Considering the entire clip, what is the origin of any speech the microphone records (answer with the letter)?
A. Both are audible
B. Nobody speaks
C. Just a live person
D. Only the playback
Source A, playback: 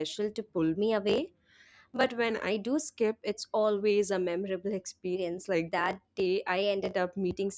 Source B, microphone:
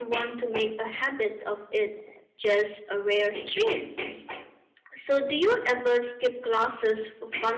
C